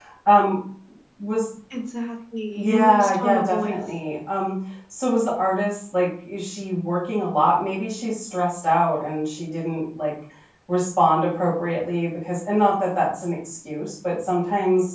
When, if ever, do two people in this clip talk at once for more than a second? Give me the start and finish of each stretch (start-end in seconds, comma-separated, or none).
2.5-3.8